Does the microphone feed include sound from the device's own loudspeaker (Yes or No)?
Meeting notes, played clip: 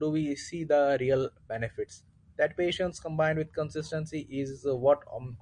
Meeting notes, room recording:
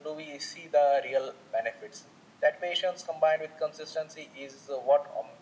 Yes